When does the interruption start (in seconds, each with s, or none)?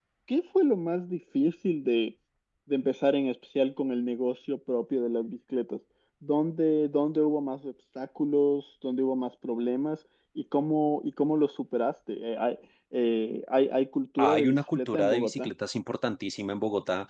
14.2 s